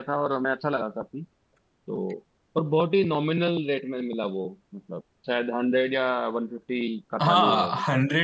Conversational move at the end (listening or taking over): taking over